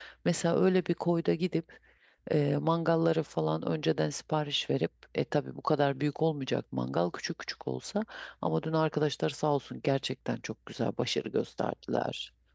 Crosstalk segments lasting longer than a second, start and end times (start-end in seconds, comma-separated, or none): none